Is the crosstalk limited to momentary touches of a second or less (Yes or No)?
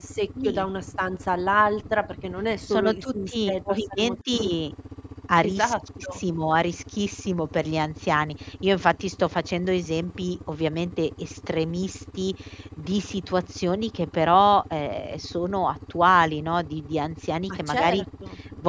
No